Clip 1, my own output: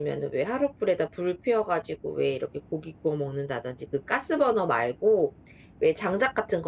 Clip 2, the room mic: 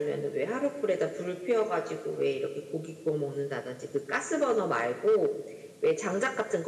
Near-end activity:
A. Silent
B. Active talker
A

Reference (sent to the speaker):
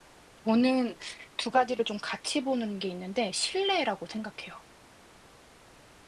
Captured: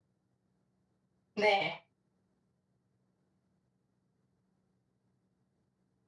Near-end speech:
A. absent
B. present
B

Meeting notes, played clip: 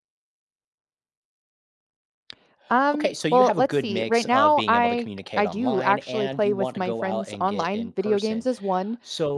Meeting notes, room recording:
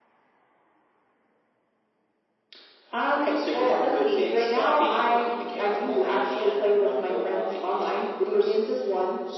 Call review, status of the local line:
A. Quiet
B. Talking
A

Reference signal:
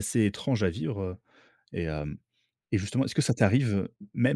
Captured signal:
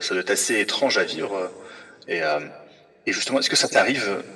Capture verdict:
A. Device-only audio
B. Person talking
A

